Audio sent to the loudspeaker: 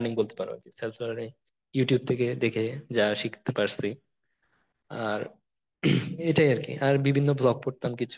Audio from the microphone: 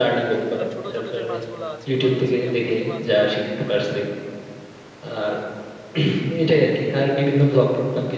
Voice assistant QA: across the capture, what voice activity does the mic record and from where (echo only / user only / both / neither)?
both